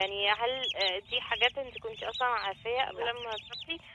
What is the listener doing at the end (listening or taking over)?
listening